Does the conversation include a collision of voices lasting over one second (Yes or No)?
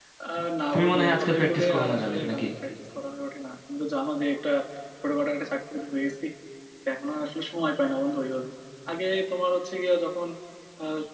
Yes